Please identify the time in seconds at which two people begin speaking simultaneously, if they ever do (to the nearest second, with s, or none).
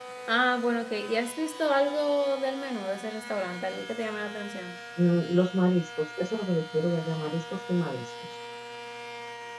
none